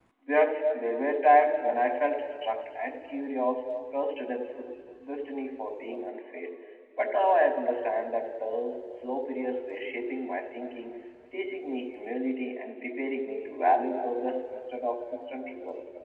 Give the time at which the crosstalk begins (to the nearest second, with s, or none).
none